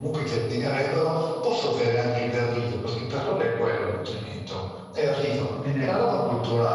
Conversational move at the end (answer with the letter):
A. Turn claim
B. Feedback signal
B